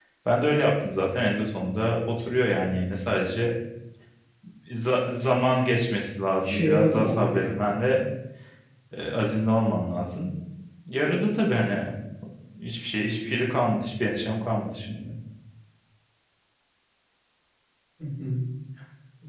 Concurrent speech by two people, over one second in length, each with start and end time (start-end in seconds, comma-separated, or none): 6.4-7.7